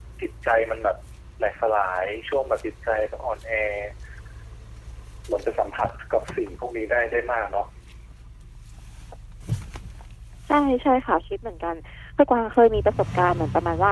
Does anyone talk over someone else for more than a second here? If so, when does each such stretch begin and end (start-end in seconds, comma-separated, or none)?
none